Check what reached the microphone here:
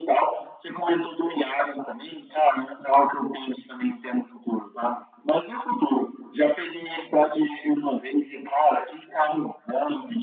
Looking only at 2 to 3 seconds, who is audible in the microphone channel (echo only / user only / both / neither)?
echo only